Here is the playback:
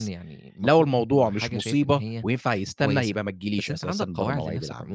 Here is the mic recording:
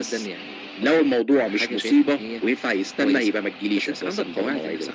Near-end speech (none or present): none